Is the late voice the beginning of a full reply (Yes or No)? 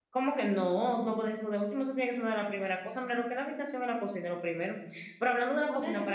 No